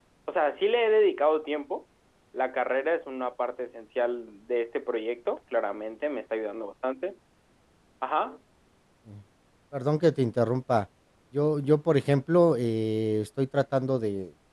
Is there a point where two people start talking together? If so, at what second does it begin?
none

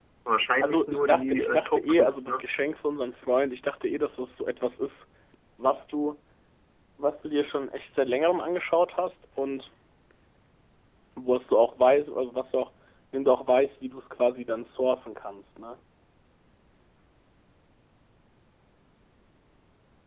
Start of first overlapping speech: 0.6 s

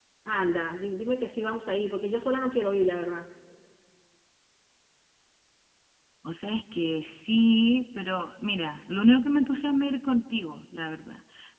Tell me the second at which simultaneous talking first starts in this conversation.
none

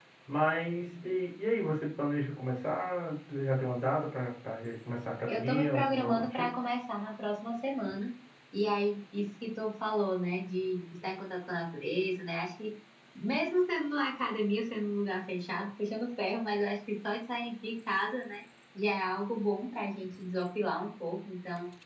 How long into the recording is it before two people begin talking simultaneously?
5.3 s

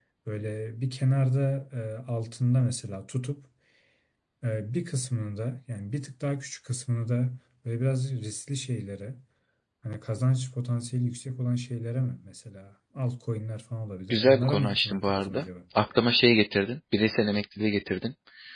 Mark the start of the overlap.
14.1 s

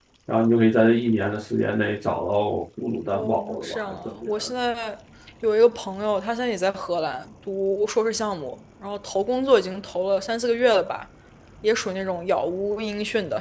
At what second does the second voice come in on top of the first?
3.1 s

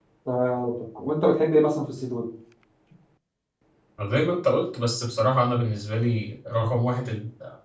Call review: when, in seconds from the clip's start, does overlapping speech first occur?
none

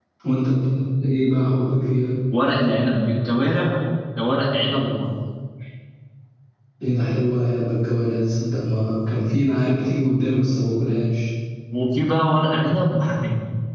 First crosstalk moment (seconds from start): none

